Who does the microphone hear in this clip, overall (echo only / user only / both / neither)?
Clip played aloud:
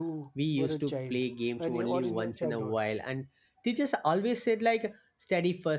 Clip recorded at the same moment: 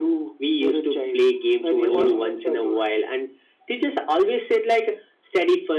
both